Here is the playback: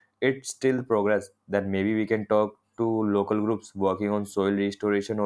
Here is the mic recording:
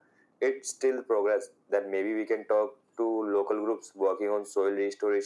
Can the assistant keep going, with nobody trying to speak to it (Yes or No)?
Yes